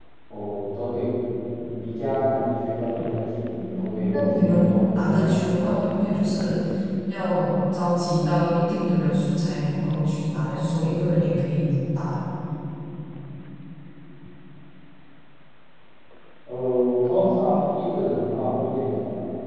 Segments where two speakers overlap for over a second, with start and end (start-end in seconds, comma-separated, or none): 3.7-6.2